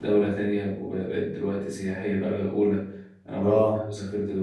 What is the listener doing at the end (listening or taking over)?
listening